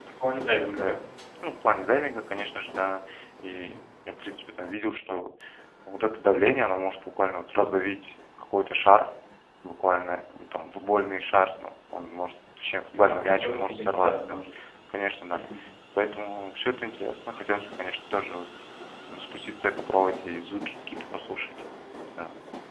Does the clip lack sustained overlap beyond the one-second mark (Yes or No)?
No